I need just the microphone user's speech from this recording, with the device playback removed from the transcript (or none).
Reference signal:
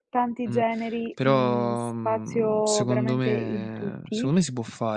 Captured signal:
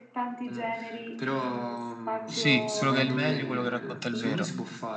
sì, quello che è il meglio, quello che racconta il vero.